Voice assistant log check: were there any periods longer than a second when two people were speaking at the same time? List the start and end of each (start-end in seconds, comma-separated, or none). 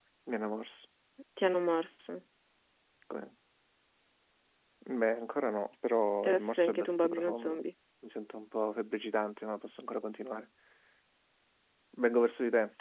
6.2-7.6